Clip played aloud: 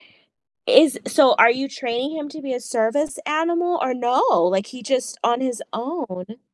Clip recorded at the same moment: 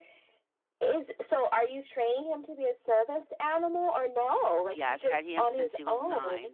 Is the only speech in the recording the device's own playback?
No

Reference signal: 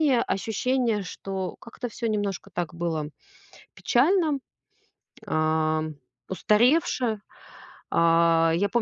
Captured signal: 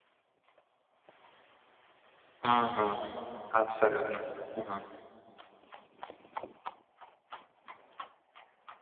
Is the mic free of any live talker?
No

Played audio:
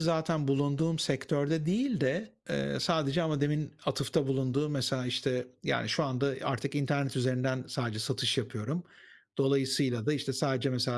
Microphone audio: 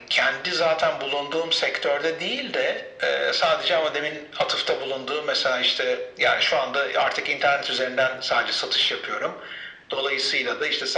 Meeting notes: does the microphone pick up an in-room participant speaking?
No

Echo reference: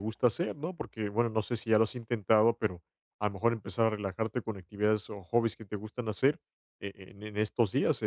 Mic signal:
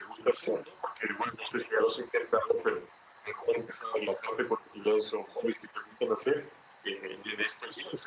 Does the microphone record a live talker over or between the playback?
No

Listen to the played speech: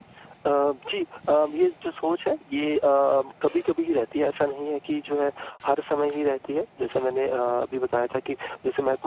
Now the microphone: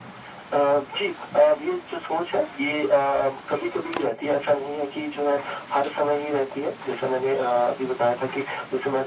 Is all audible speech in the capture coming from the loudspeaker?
Yes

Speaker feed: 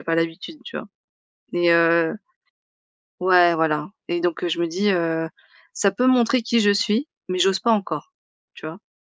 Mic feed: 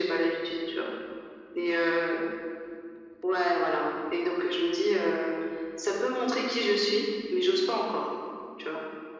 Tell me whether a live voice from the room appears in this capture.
No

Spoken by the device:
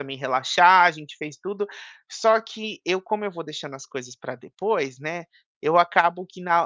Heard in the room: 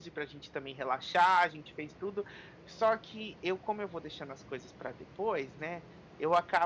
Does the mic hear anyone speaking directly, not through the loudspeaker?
No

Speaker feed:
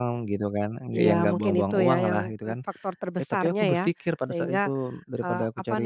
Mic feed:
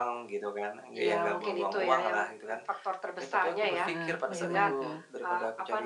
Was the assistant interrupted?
Yes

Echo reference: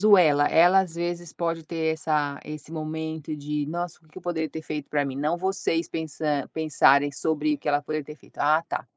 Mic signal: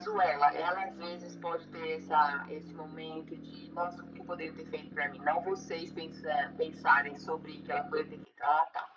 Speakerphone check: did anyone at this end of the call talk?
No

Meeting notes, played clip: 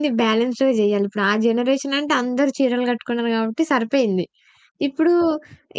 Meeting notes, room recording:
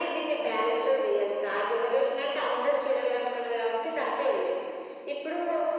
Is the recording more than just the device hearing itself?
No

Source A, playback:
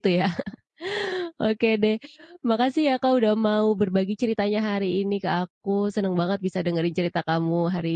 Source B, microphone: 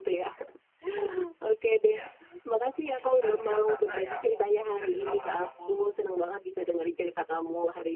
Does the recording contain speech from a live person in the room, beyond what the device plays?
Yes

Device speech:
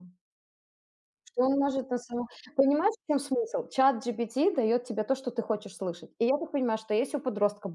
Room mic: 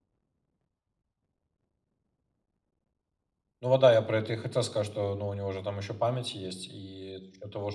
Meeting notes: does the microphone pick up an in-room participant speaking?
Yes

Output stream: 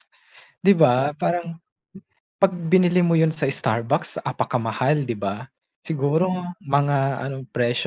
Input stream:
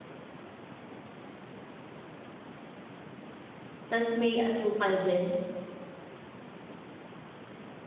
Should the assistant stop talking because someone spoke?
Yes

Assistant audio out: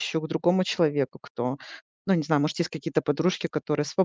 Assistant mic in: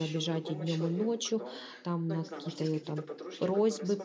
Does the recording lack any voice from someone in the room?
No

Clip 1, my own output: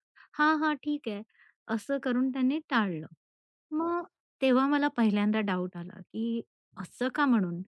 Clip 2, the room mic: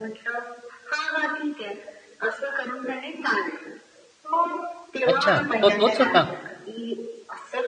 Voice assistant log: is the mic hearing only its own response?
No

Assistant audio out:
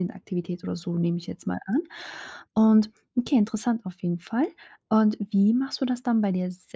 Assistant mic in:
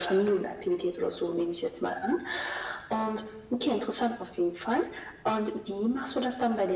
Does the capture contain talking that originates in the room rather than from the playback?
No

